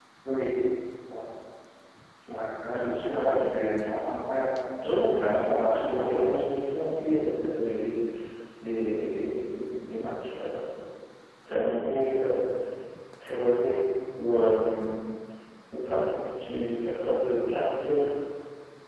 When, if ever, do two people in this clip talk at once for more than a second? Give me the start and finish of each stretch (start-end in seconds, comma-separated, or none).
5.0-6.5